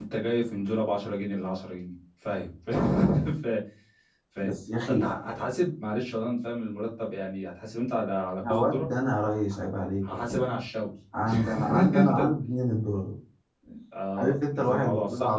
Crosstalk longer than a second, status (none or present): present